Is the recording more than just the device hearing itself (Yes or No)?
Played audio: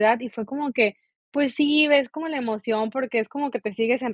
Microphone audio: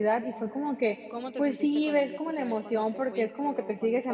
Yes